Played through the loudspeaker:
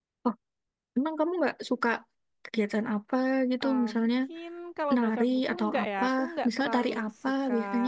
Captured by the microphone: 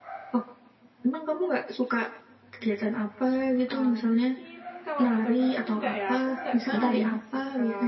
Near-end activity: present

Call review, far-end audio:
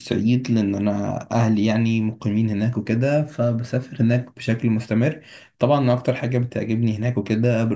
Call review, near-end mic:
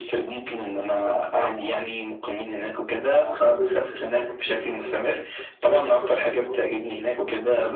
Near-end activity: present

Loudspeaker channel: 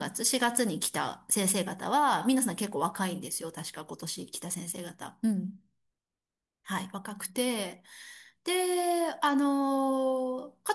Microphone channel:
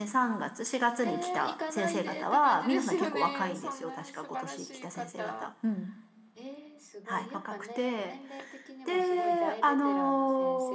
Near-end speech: present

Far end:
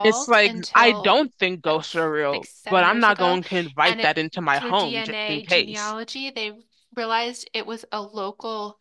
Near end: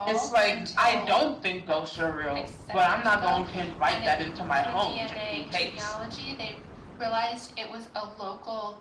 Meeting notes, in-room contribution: none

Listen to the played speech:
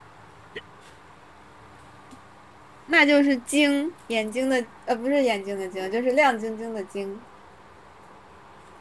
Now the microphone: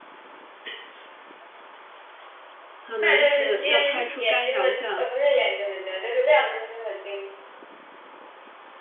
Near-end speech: present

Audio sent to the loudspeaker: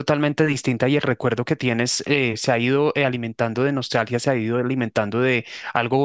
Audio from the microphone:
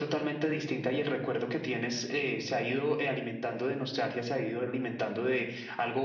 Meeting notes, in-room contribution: none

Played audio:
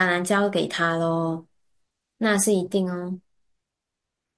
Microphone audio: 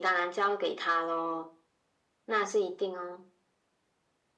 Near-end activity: none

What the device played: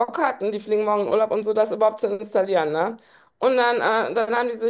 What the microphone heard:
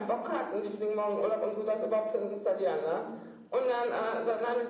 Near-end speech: none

